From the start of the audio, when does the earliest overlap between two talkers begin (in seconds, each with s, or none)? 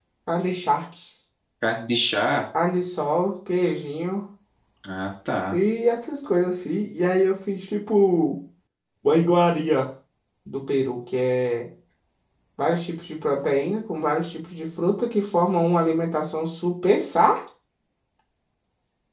none